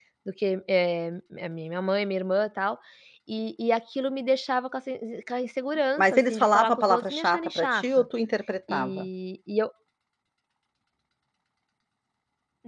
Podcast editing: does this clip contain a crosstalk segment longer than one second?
Yes, from 6.0 s

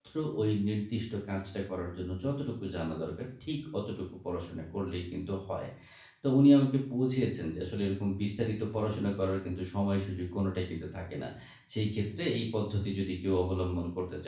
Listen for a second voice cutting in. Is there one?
No

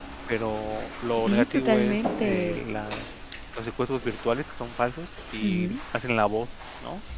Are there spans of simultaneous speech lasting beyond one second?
Yes, from 1.1 s

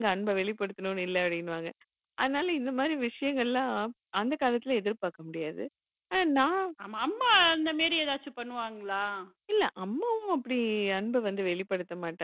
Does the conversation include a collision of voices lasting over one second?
No

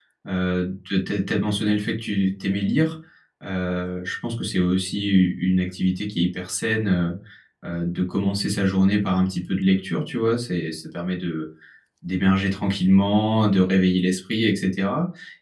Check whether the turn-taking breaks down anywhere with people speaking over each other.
No

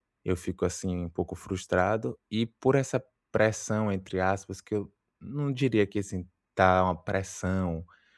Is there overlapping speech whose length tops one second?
No

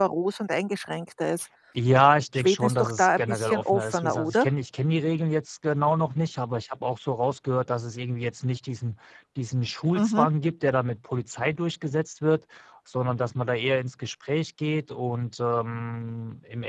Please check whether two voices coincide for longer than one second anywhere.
Yes, from 2.3 s

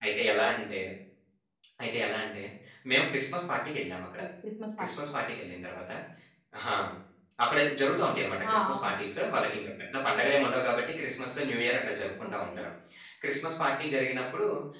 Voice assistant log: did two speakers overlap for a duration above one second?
No

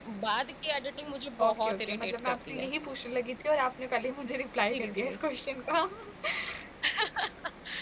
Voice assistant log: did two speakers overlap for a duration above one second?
Yes, from 1.4 s

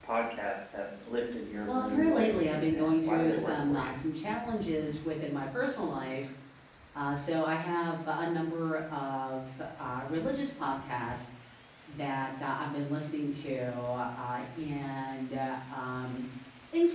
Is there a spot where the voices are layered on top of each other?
Yes, from 1.7 s

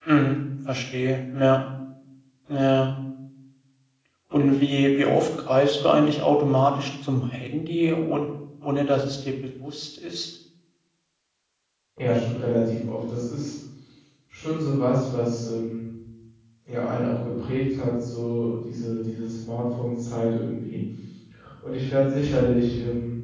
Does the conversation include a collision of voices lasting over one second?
No

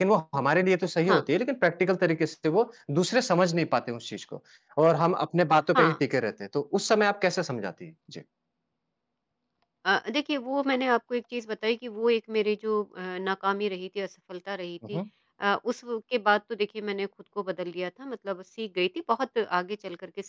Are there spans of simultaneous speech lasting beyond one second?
No

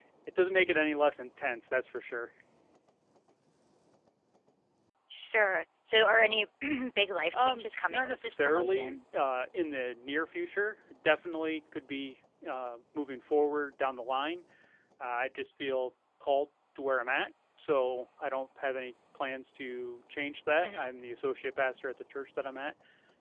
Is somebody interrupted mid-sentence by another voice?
Yes, from 7.3 s

